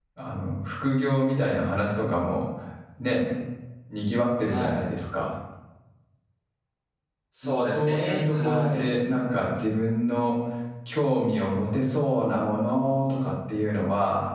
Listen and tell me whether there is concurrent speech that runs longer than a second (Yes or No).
Yes